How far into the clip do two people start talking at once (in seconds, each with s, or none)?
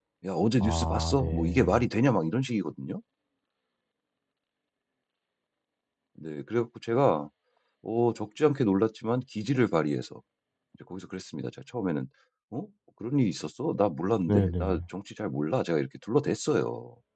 0.6 s